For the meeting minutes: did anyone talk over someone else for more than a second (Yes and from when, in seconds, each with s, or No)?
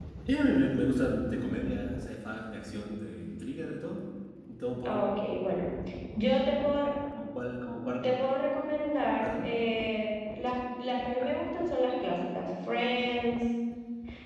No